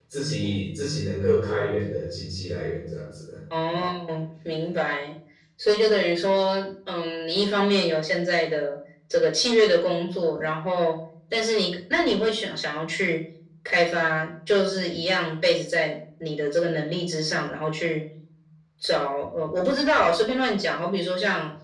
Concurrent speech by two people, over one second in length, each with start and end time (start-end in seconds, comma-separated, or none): none